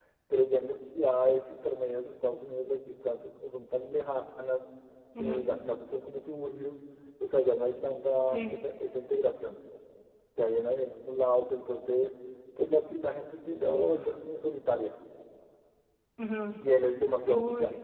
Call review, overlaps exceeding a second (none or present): none